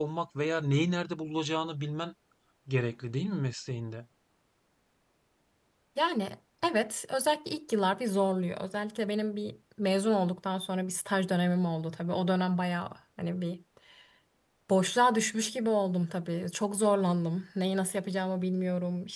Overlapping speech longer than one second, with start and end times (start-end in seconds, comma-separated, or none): none